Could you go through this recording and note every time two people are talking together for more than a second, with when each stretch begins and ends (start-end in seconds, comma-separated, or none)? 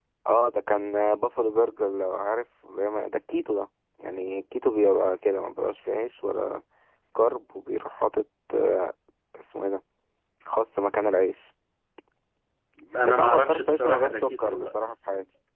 13.1-14.7